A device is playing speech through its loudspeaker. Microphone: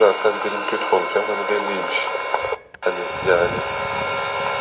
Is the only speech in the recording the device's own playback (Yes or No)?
Yes